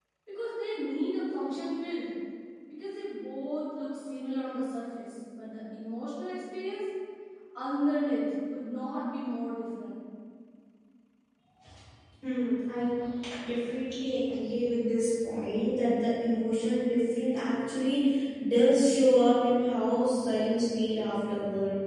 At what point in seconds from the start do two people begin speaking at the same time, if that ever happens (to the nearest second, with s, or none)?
none